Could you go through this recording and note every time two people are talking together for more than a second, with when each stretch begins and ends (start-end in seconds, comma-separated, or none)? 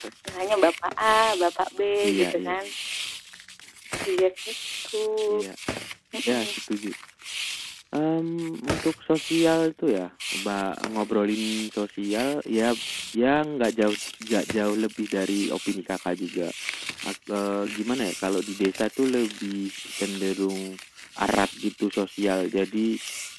none